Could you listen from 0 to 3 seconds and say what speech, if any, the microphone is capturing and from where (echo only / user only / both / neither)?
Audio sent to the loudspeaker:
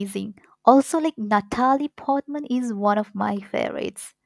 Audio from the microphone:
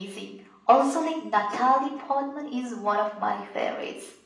echo only